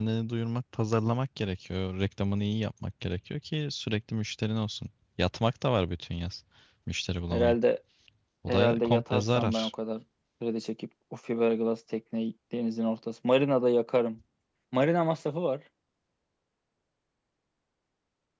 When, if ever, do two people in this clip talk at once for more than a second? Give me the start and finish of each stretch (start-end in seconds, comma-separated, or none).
8.5-9.7